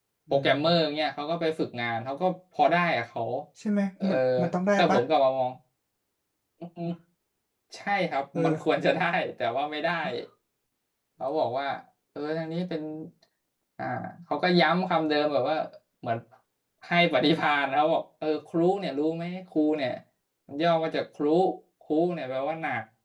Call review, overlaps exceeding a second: none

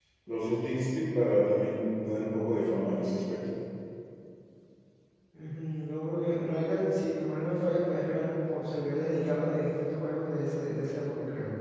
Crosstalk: none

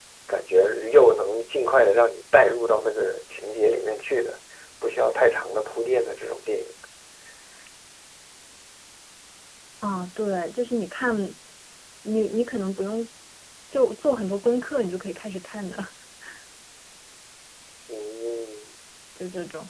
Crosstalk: none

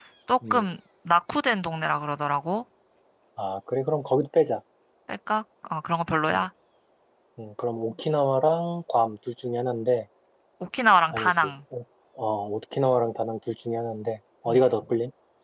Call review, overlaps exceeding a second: none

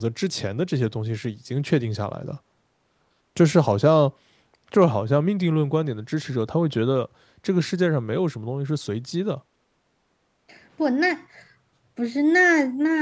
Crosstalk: none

